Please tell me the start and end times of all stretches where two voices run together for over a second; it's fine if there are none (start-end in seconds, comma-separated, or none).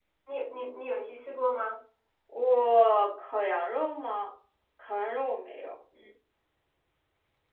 none